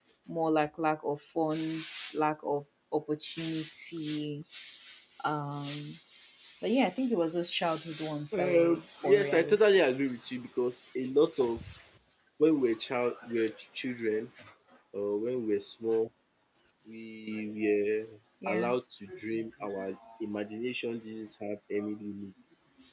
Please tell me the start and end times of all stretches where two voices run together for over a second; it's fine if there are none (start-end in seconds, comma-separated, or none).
8.3-9.6